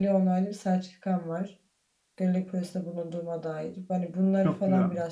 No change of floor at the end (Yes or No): Yes